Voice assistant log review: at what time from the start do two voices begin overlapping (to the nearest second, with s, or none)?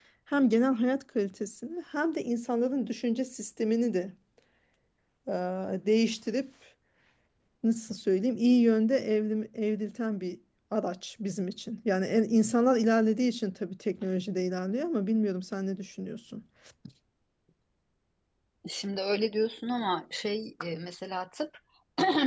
none